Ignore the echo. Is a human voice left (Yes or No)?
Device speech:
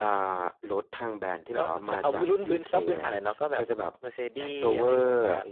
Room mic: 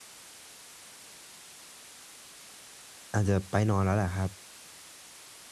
Yes